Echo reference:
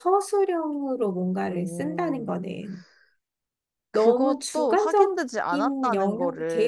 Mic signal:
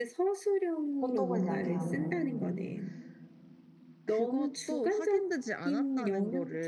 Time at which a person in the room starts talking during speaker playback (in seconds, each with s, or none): 1.0 s